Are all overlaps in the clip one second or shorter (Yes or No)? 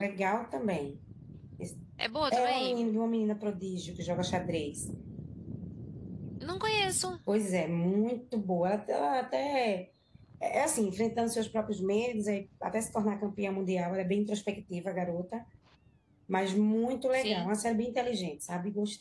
Yes